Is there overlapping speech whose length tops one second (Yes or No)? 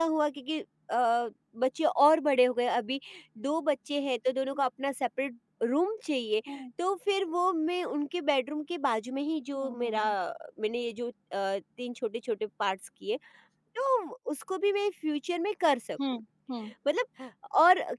No